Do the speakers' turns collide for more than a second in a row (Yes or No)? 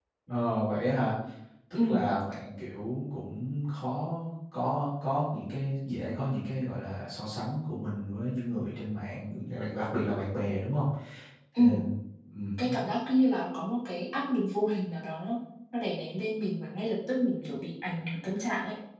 No